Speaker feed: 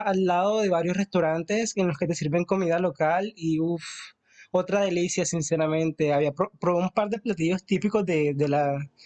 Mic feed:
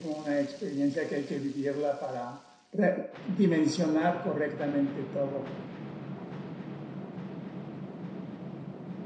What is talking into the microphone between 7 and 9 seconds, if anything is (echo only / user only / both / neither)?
neither